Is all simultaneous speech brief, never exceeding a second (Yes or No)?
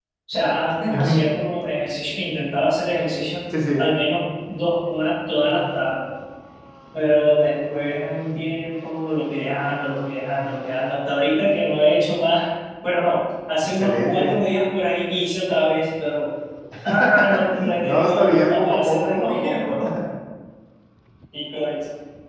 No